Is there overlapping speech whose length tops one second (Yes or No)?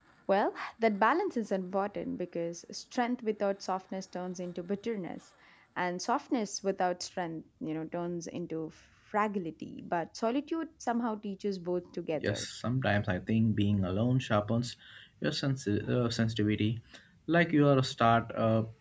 No